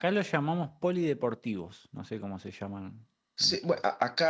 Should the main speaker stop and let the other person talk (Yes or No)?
Yes